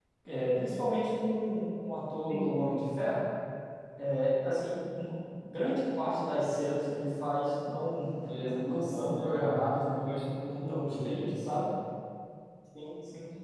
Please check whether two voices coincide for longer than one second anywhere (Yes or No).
Yes